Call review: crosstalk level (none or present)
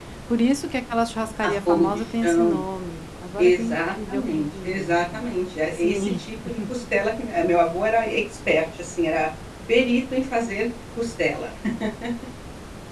present